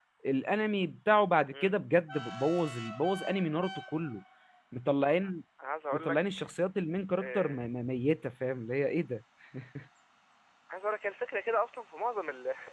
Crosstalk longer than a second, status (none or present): none